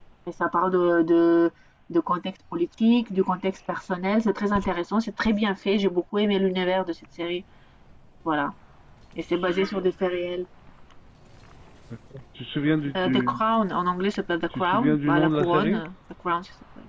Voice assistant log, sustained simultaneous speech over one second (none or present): present